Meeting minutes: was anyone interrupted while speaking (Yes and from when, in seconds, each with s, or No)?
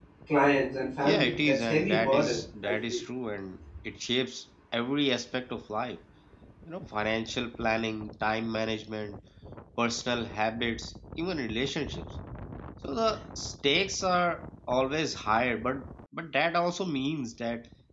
Yes, from 1.1 s